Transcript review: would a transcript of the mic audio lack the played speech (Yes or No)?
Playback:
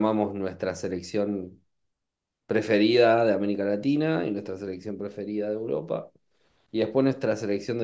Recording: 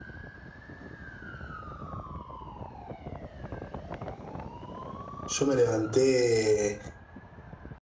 Yes